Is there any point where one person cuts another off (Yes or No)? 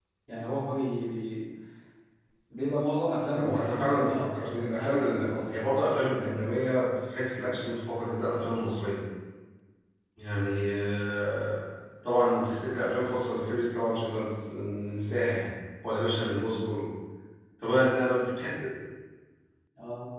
Yes